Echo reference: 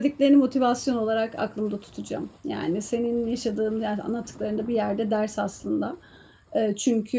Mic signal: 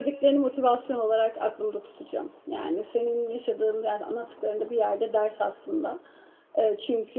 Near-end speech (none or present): none